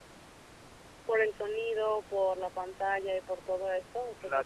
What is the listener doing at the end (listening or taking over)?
taking over